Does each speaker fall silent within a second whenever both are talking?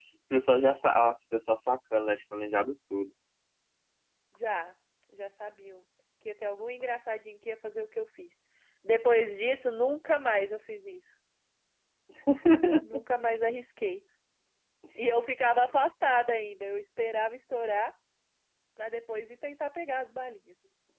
Yes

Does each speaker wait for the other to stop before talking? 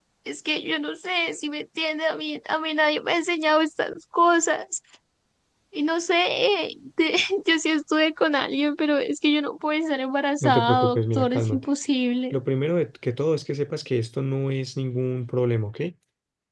No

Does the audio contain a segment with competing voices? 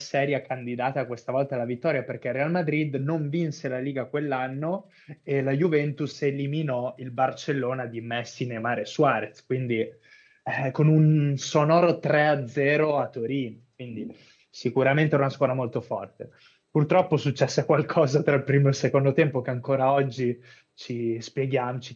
No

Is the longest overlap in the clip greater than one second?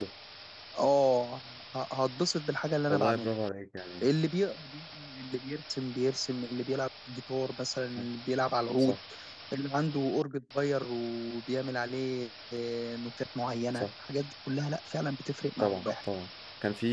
No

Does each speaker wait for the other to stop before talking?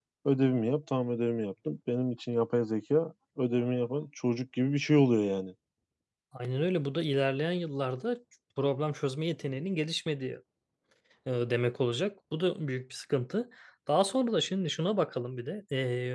Yes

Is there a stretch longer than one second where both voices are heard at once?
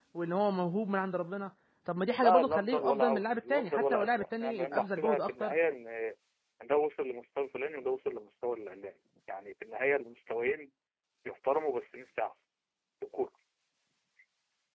Yes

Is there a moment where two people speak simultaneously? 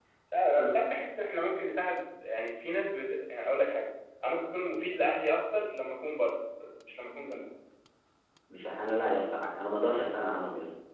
No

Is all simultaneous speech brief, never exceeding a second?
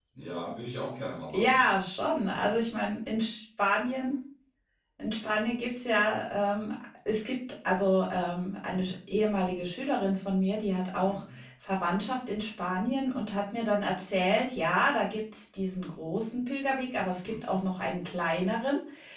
Yes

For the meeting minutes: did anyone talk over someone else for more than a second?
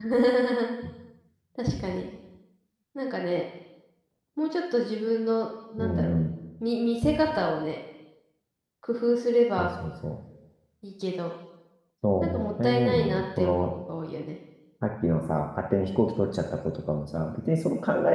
Yes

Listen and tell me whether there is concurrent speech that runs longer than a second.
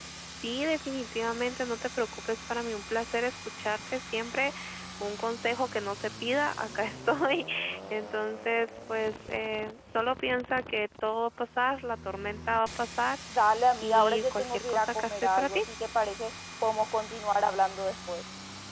Yes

